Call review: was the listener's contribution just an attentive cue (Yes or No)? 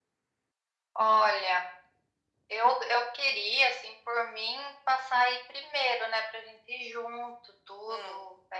Yes